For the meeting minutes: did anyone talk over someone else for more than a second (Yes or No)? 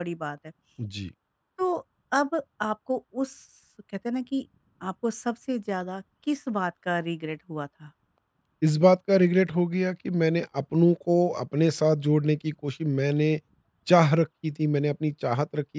No